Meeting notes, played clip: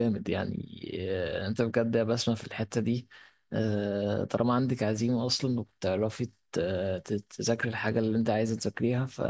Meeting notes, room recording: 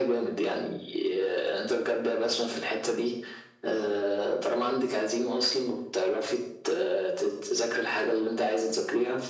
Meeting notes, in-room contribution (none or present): none